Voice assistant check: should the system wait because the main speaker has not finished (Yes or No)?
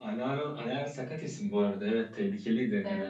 No